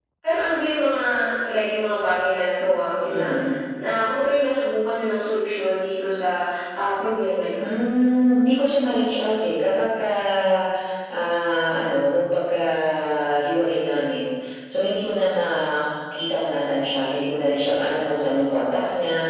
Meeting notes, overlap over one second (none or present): none